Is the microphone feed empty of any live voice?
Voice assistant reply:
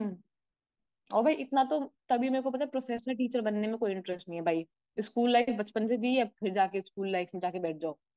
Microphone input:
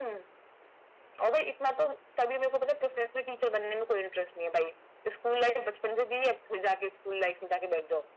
Yes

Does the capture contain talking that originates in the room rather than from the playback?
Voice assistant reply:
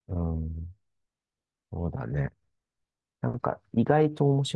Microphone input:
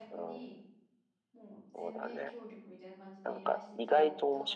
Yes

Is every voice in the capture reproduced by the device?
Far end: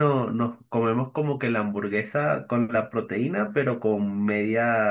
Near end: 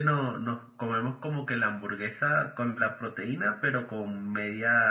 Yes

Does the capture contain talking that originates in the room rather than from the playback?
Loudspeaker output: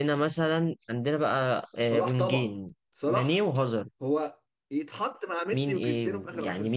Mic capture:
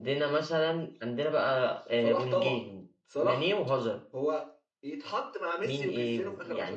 No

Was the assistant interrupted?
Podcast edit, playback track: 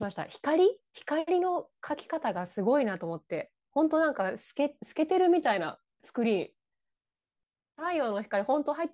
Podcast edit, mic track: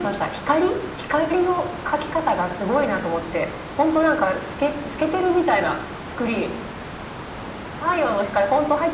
No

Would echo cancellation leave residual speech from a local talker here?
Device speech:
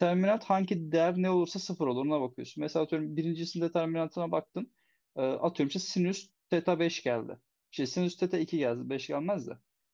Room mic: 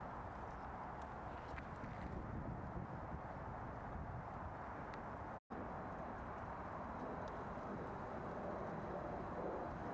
No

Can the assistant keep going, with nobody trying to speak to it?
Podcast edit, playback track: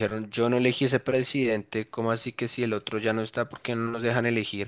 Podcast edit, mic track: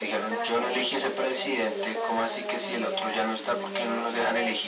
No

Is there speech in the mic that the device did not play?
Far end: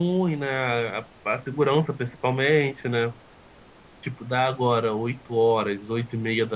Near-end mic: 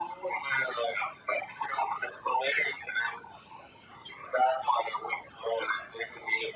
No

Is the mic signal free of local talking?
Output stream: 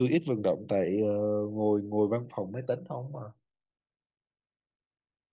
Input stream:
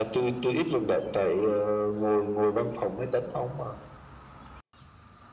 Yes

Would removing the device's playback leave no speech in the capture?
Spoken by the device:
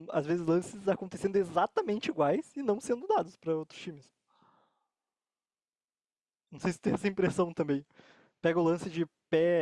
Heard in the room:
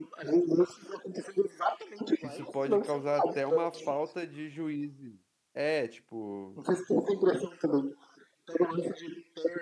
No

